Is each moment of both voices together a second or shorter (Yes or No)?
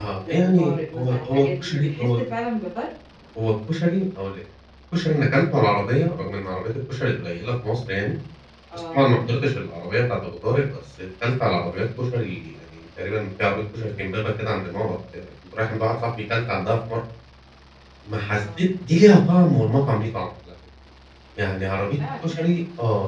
No